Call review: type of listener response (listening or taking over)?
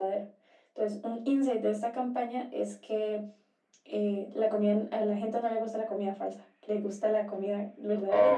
taking over